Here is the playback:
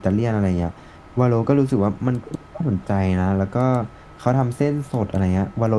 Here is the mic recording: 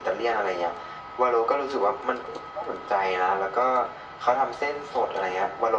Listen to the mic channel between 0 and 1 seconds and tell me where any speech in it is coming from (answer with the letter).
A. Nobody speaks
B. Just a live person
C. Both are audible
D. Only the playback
D